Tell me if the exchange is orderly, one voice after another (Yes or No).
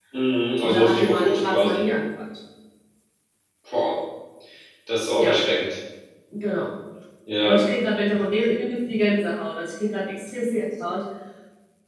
No